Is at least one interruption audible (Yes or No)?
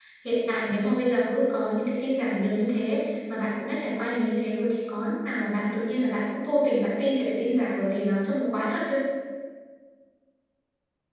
No